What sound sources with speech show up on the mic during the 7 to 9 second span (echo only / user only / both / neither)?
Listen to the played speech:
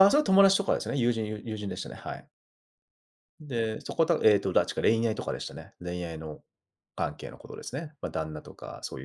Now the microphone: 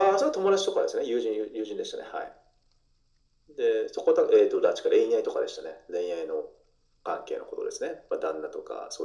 echo only